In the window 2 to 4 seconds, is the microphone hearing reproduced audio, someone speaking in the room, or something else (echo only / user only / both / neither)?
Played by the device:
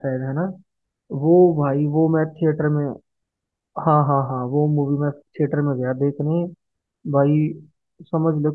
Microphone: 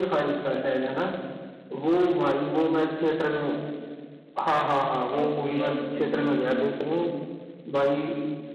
echo only